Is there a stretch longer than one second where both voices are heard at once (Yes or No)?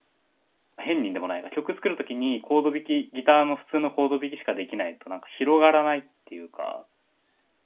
No